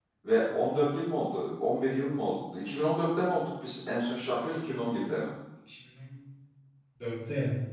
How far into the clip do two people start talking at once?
none

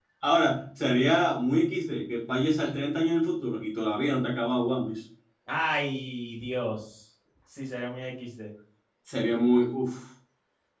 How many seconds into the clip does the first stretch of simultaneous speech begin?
none

